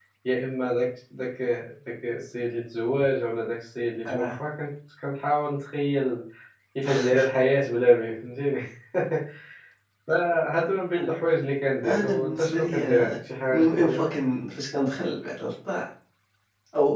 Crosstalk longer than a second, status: present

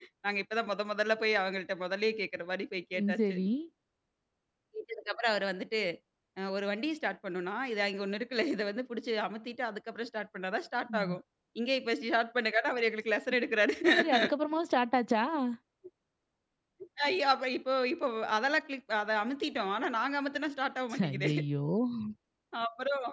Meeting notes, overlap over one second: none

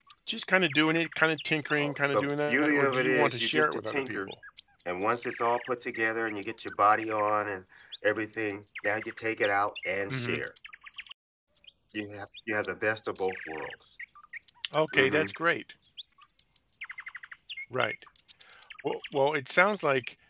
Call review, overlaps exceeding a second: present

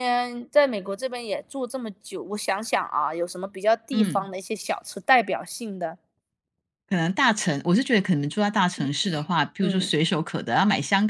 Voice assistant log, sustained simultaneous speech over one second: none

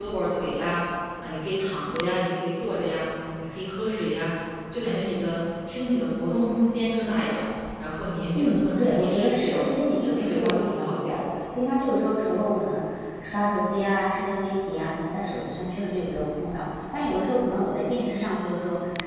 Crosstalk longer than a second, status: present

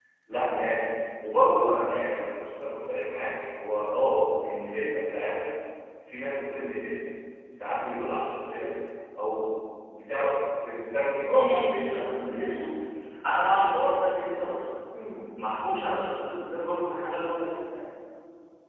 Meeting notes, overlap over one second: present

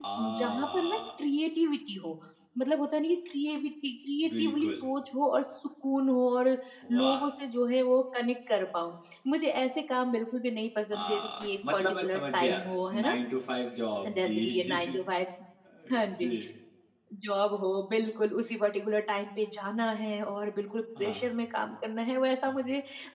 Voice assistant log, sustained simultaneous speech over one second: present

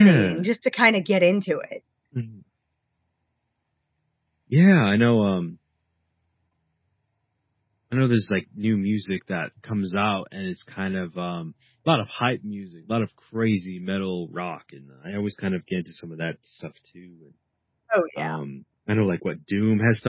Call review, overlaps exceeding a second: none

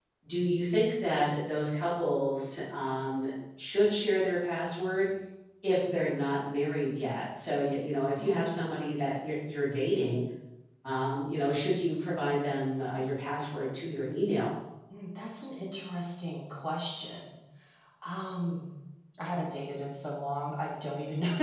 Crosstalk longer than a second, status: none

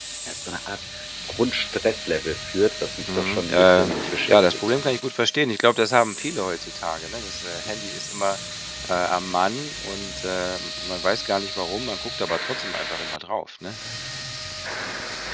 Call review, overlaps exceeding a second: present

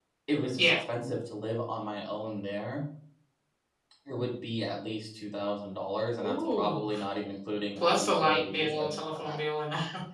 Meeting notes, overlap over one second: present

